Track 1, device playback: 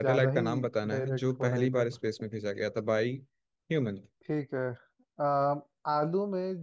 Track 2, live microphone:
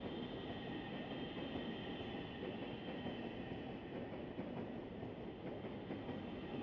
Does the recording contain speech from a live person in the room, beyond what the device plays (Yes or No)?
No